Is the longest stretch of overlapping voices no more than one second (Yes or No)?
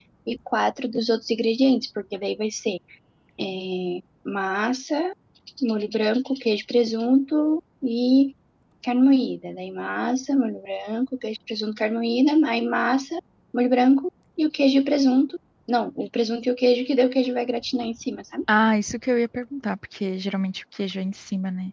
Yes